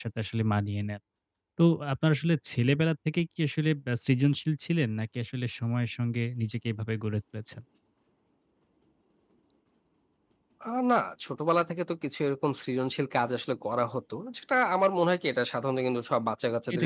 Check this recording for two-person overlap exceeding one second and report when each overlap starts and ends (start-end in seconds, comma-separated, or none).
none